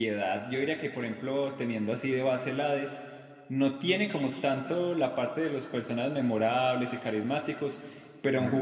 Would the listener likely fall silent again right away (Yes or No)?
Yes